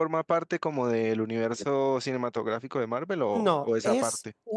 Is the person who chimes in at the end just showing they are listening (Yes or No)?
No